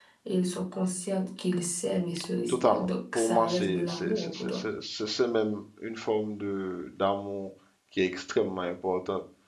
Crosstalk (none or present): present